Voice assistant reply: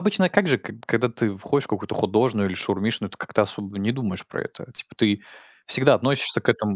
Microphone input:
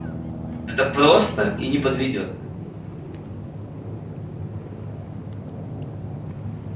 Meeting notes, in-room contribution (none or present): present